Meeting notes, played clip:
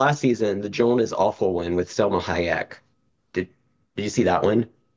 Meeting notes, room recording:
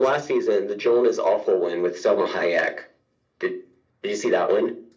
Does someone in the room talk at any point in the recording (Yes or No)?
No